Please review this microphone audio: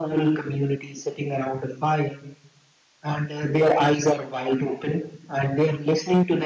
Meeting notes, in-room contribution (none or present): none